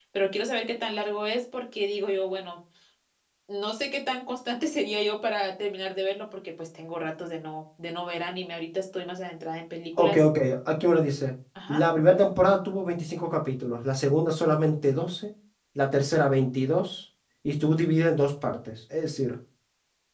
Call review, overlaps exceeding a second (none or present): none